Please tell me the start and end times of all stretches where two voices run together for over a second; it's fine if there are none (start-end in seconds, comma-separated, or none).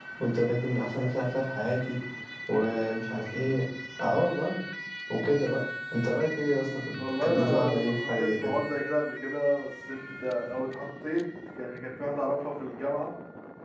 7.0-8.6